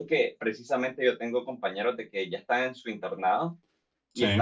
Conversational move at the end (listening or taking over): listening